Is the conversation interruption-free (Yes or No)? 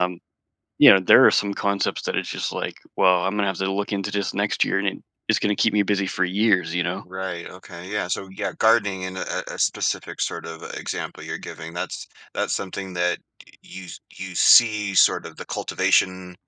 Yes